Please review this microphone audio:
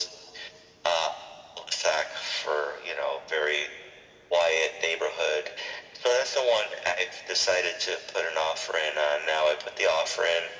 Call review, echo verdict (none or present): present